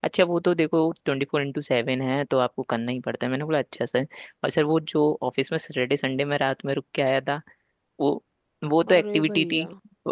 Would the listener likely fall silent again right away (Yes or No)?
Yes